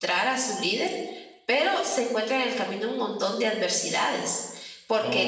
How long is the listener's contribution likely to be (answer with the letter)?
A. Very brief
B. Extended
A